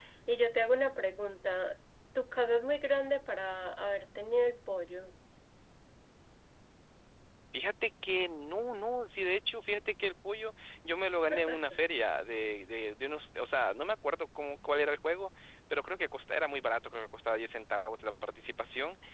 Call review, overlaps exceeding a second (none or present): none